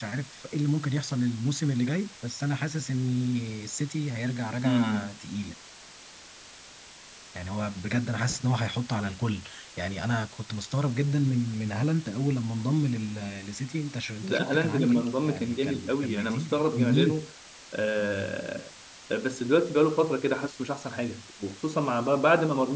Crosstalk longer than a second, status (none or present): present